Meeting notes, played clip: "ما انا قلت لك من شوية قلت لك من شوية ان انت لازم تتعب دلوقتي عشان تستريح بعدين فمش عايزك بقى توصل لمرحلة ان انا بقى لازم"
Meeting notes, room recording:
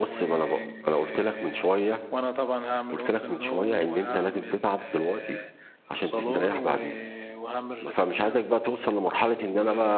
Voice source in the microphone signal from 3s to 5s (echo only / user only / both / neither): both